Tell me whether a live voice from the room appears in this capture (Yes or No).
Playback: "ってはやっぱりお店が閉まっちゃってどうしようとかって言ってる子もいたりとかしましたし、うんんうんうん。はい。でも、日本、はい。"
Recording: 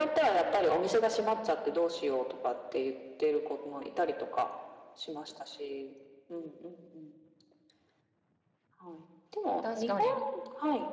Yes